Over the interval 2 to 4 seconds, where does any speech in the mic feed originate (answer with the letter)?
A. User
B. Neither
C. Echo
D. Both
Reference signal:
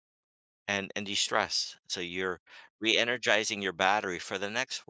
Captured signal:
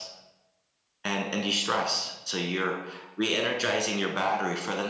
C